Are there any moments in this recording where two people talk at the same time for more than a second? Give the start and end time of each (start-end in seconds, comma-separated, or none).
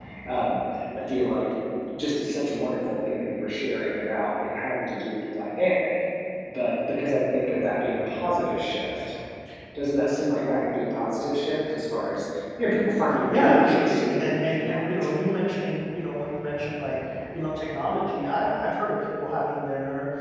13.3-15.1